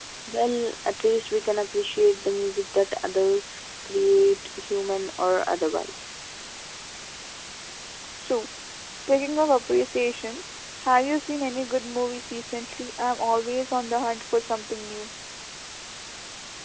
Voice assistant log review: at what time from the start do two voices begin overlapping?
none

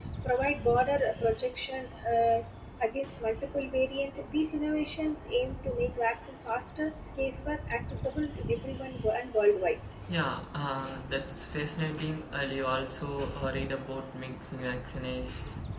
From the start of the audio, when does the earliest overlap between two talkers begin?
none

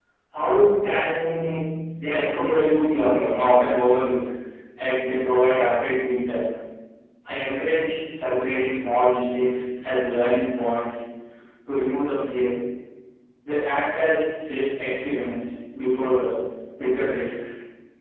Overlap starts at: 2 s

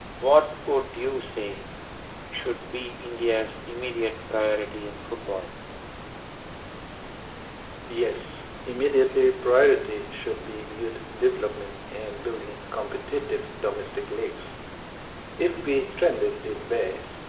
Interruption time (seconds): none

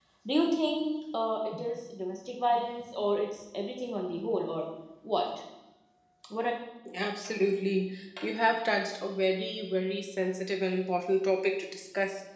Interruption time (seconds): none

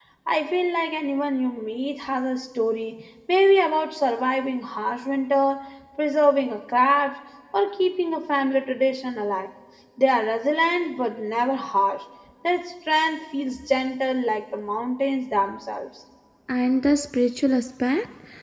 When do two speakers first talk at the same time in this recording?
none

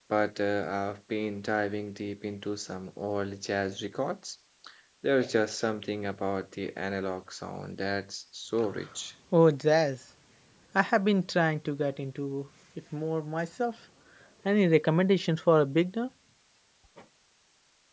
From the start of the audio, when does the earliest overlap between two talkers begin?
none

